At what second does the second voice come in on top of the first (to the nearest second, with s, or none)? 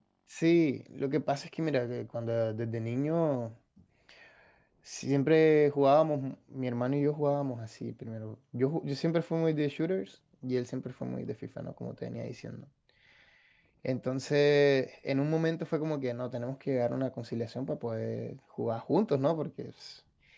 none